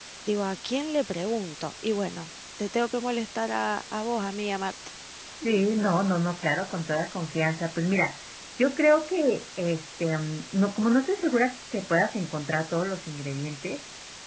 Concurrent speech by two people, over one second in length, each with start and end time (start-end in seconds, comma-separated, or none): none